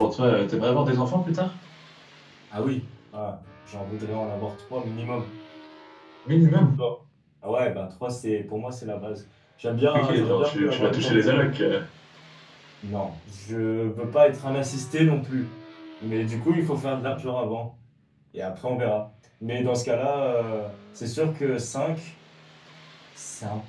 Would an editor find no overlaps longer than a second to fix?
No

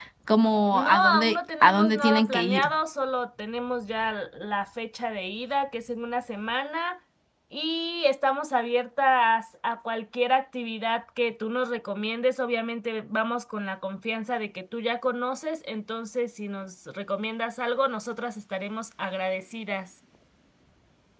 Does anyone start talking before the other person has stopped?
Yes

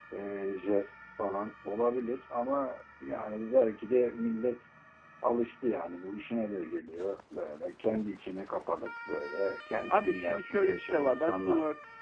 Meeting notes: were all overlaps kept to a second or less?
No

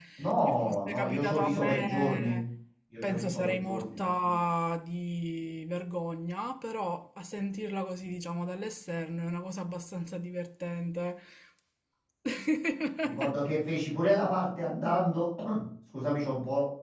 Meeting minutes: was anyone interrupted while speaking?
Yes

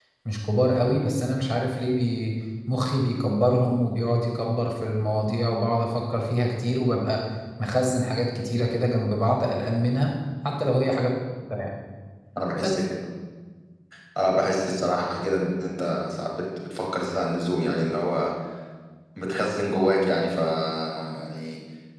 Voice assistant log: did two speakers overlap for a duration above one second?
No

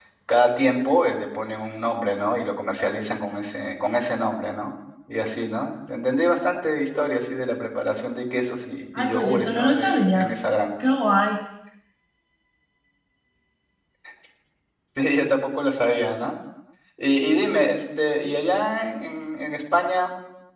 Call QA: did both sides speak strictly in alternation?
No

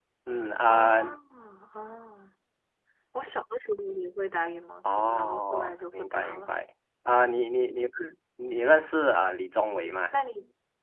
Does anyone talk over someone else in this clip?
Yes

